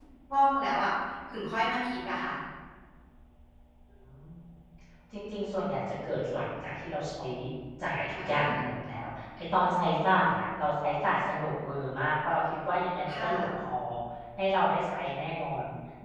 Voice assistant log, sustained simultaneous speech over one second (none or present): none